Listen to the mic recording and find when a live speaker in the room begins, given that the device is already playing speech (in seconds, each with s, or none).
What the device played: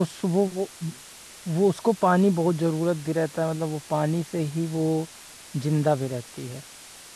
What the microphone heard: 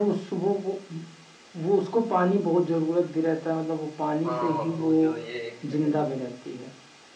4.3 s